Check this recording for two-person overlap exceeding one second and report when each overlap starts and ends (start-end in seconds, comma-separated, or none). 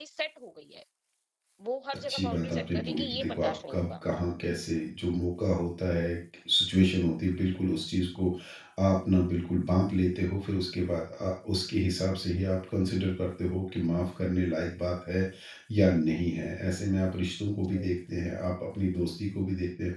2.1-3.9